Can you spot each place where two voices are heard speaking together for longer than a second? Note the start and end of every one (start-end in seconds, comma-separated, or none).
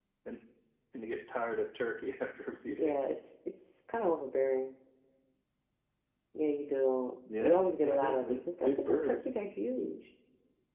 7.4-9.2